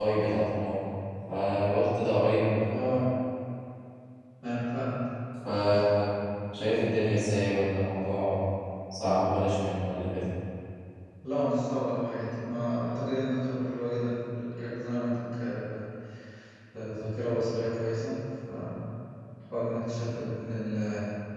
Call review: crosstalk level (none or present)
none